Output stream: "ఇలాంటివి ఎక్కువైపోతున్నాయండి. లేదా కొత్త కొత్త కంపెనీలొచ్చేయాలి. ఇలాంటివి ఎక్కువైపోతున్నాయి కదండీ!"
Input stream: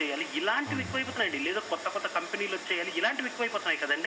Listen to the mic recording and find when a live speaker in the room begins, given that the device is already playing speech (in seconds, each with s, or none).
0.7 s